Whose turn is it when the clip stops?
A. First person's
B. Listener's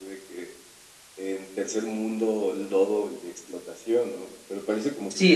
B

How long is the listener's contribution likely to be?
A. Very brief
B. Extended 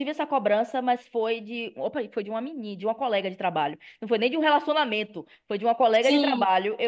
A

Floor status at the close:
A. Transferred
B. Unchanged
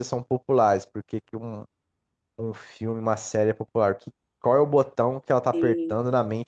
B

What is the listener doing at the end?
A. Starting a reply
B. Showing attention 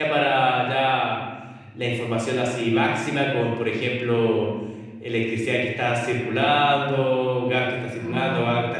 B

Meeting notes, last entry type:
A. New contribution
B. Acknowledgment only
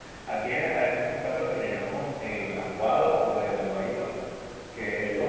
B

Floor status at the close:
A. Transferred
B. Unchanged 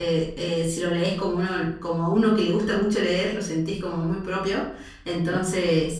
B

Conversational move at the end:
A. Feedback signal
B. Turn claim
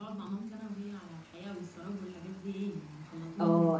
B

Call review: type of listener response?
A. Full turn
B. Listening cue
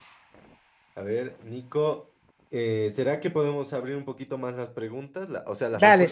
A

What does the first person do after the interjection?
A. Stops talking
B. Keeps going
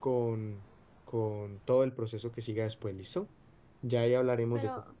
B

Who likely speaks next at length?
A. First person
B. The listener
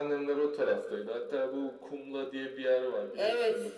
B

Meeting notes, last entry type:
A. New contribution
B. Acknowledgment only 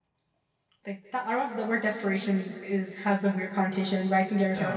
B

